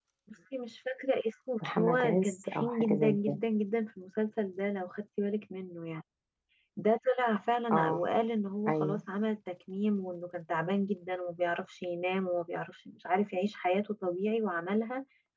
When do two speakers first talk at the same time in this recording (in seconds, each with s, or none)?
1.8 s